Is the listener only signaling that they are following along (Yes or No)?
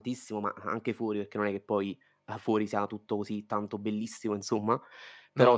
Yes